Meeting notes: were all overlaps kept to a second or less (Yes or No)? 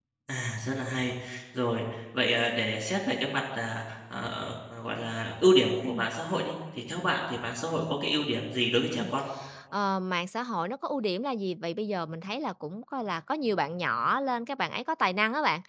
Yes